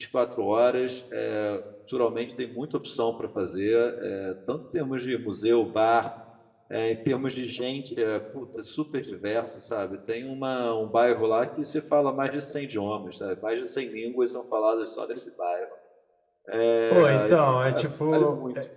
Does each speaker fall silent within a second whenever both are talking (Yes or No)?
No